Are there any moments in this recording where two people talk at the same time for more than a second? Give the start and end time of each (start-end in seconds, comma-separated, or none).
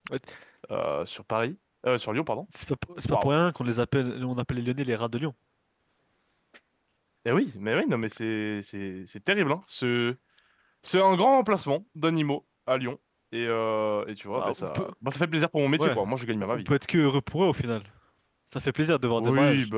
none